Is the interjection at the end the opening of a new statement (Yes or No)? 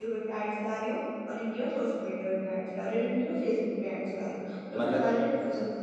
No